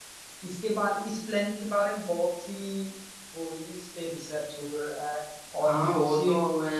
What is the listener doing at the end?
taking over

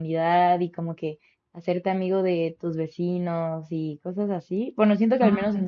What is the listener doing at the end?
listening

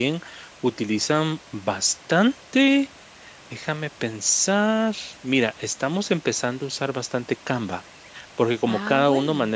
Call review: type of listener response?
listening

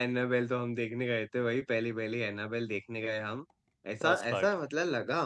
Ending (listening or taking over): listening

